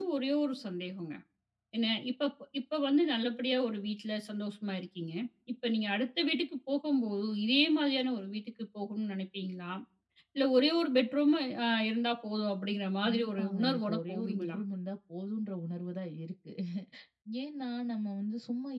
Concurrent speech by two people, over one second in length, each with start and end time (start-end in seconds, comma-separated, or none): 13.0-14.6